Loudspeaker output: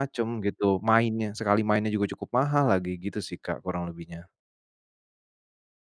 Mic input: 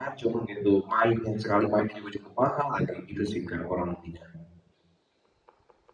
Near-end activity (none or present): none